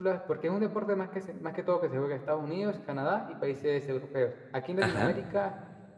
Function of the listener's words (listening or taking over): listening